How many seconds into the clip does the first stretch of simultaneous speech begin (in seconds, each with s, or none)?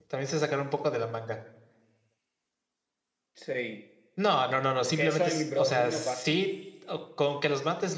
5.0 s